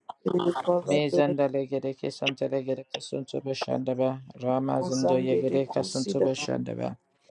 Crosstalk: present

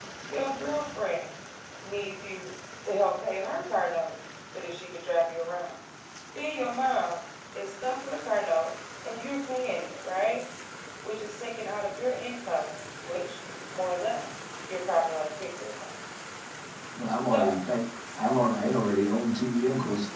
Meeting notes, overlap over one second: none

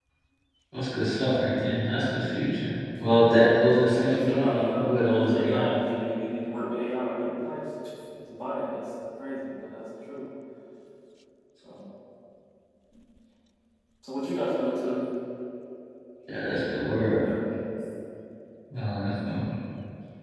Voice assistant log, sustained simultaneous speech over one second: present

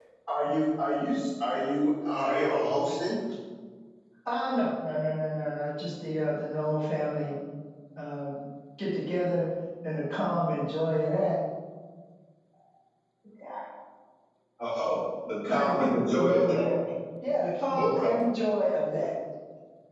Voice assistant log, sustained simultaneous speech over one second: present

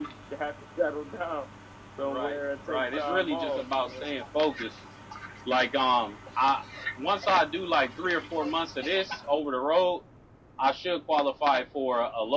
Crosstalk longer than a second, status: present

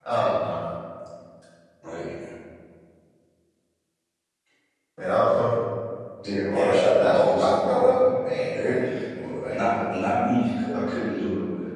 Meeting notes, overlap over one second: present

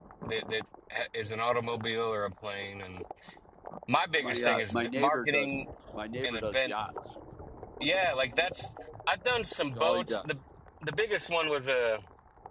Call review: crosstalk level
present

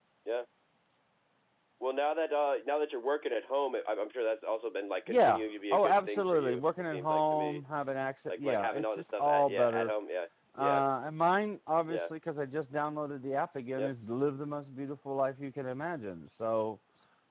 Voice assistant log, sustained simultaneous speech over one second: present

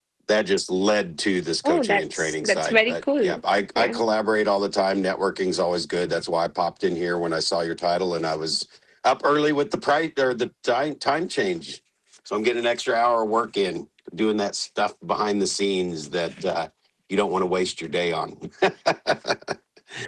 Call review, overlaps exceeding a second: present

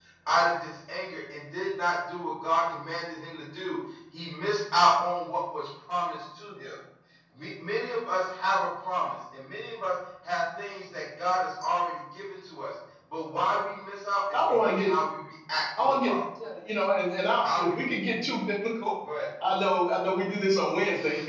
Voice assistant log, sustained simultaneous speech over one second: none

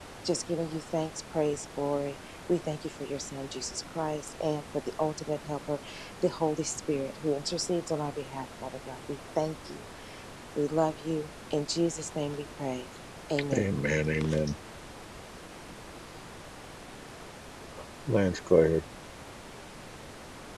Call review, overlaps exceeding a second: none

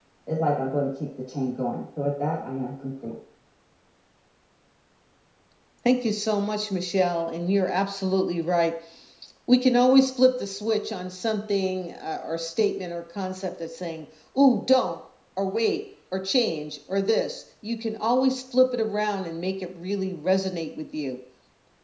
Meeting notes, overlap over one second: none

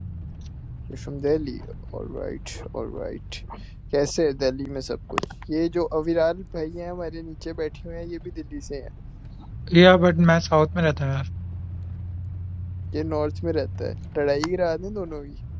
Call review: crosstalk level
none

